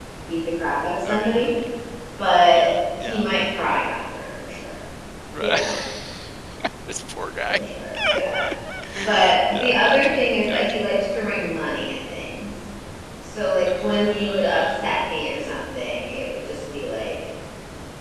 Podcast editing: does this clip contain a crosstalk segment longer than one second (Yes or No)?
Yes